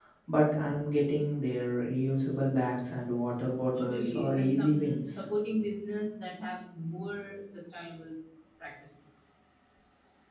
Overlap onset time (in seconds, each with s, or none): 3.7 s